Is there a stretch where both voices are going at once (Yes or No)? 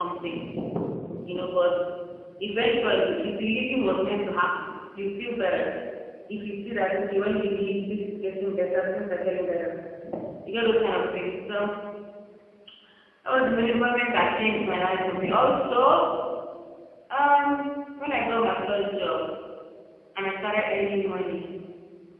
No